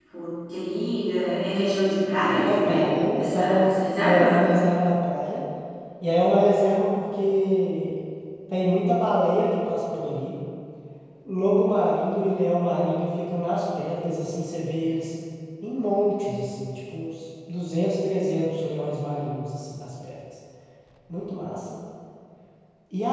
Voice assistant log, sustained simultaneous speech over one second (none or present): present